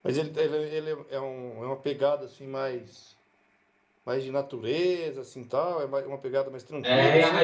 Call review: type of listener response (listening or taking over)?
taking over